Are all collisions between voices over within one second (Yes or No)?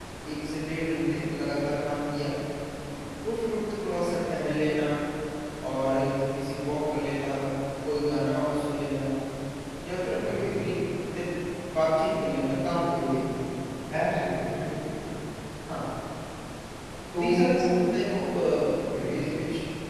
Yes